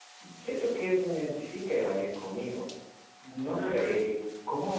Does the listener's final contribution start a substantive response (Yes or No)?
No